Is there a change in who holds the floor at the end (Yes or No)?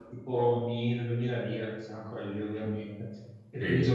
No